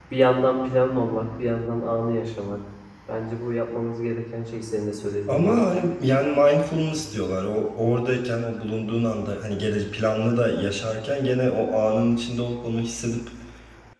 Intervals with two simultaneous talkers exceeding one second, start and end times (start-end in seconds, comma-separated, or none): none